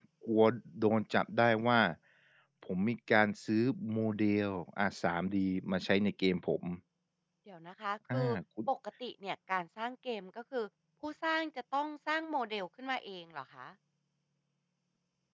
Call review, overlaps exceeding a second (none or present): none